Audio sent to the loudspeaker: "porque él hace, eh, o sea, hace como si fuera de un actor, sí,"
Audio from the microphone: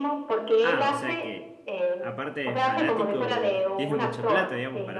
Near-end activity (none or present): present